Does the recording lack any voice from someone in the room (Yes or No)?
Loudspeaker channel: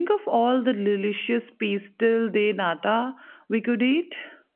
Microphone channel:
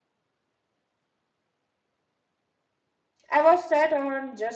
No